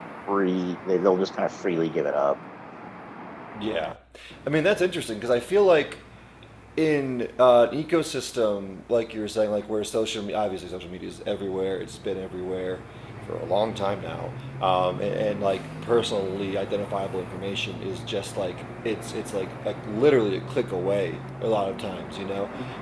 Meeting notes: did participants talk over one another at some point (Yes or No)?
No